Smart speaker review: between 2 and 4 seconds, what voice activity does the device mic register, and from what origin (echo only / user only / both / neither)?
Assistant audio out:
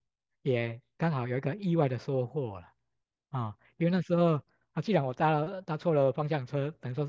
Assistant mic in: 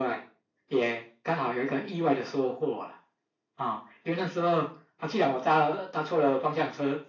echo only